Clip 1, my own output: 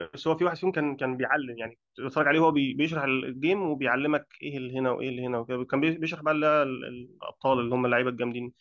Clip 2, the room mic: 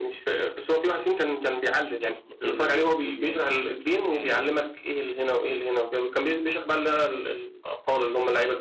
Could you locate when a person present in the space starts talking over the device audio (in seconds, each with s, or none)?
2.0 s